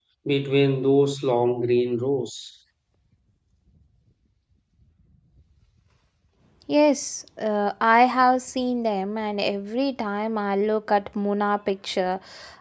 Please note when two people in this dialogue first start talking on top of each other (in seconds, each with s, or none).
none